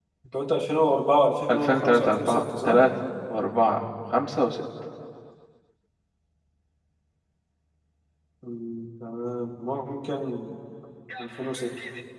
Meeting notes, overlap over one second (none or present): present